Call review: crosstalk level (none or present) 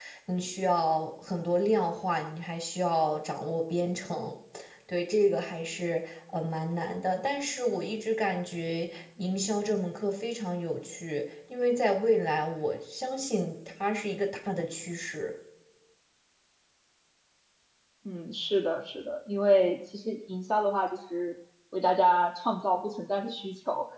none